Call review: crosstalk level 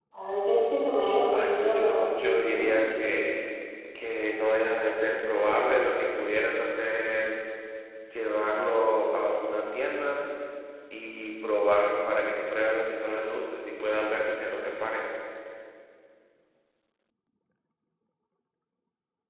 present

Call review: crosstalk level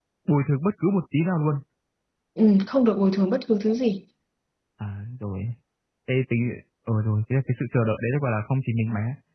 none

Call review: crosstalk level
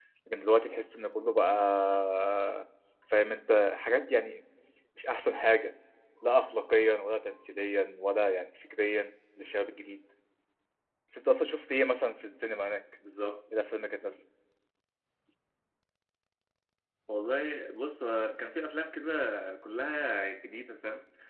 none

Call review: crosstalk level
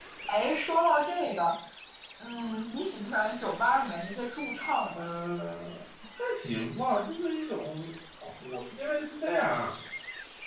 none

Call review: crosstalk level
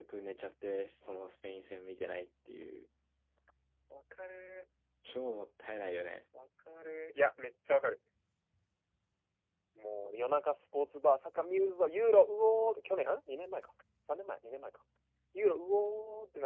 none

